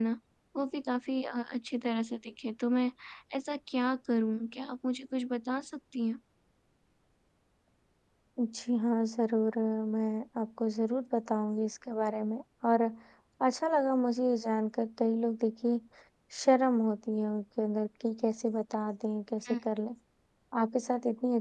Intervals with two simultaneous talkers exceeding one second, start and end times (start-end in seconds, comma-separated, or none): none